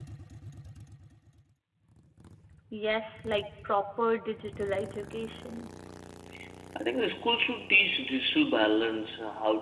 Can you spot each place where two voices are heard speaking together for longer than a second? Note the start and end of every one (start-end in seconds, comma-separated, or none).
none